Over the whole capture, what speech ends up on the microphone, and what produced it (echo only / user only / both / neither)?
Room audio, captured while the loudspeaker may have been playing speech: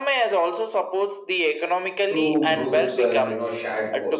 both